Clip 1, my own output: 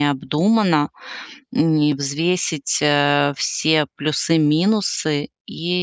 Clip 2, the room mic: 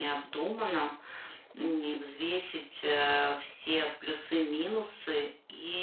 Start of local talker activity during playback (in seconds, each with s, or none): none